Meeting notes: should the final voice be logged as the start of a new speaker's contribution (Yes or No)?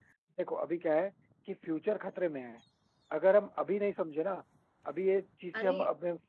No